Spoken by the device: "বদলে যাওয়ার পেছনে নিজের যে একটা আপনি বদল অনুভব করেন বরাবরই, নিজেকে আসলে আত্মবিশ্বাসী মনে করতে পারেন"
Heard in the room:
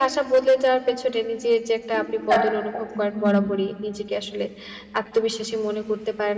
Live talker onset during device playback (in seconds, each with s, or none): 2.0 s